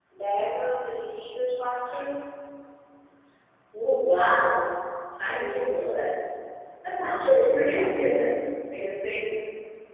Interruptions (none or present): none